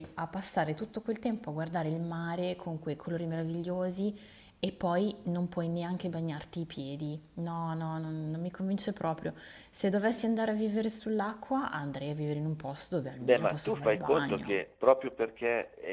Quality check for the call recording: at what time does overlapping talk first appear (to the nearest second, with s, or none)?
13 s